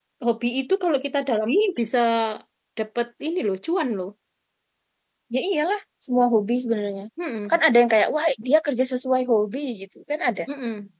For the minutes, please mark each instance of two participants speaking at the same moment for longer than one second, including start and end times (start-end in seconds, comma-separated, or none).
none